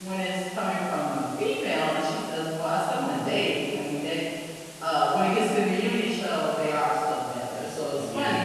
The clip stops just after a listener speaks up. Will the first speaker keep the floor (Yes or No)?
Yes